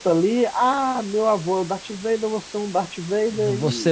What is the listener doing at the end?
taking over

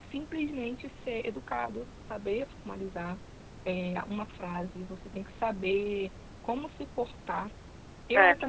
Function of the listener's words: listening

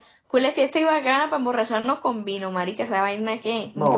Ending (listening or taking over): taking over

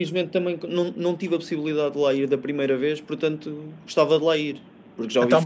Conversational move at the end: taking over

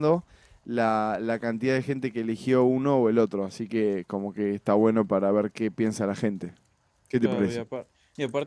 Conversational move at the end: taking over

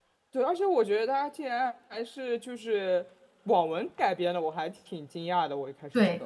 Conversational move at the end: taking over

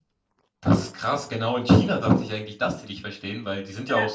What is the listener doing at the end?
listening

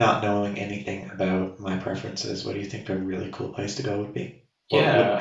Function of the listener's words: taking over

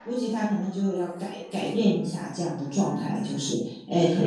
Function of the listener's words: listening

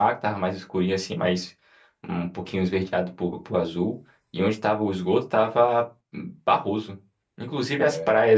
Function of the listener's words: listening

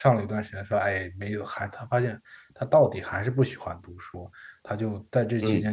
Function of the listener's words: listening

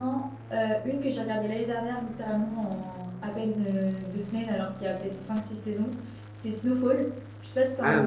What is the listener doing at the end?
taking over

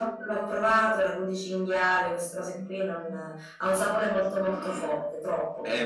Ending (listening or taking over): taking over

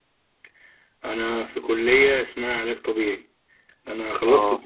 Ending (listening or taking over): listening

